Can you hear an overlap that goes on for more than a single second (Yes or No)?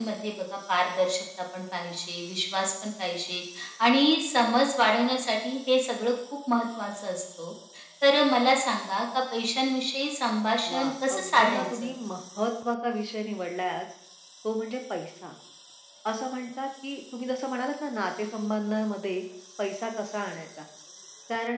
Yes